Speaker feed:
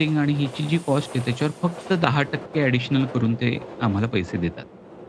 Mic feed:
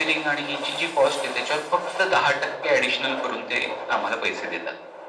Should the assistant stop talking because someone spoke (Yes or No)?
No